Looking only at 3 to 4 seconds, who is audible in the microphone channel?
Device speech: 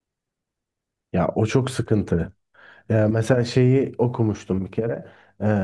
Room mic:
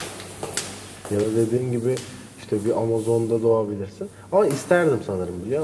user only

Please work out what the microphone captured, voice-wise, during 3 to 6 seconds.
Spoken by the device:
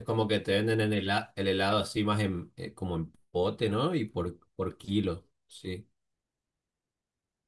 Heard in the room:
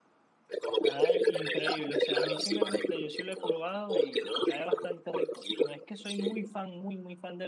both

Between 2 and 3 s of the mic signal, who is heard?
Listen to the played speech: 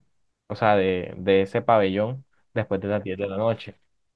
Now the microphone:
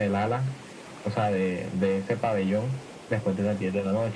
echo only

